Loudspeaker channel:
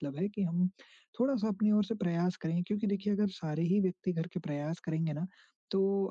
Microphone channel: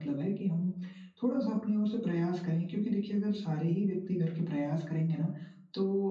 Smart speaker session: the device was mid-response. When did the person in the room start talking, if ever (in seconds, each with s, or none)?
none